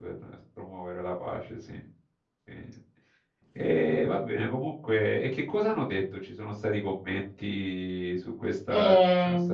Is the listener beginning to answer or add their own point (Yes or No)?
Yes